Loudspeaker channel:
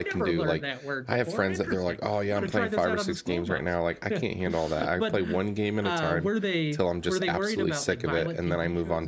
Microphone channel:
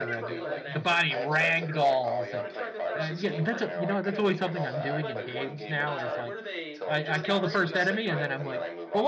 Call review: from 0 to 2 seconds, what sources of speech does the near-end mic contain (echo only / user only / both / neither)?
both